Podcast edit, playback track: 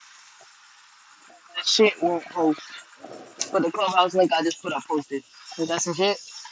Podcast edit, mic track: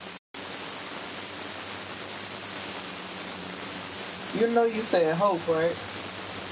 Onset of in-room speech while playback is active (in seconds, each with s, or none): 4.3 s